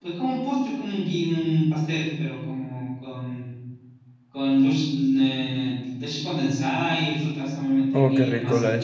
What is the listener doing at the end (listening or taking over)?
taking over